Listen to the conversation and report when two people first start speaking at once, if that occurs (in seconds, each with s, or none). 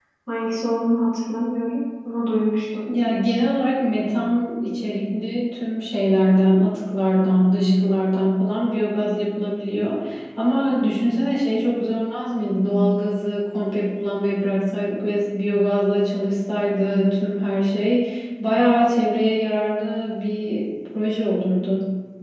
none